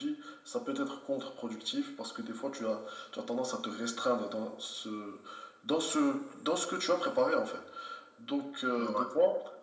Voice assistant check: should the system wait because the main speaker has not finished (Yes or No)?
Yes